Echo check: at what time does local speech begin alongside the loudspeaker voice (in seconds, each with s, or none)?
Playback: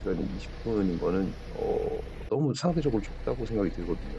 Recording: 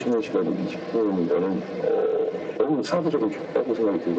none